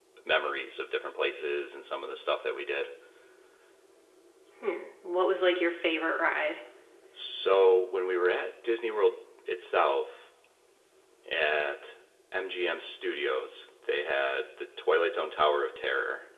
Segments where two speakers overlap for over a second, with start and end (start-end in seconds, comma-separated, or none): none